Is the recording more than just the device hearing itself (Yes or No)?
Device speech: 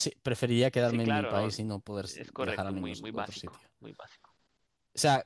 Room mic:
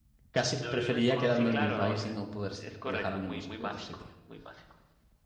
Yes